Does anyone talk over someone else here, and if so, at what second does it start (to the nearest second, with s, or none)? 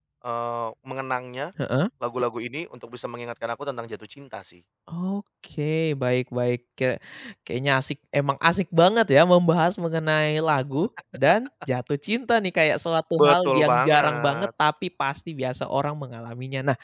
13 s